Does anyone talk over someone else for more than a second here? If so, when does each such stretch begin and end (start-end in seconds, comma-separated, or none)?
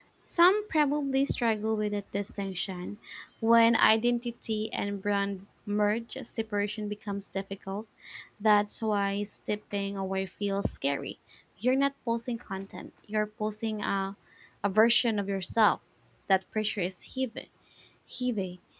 none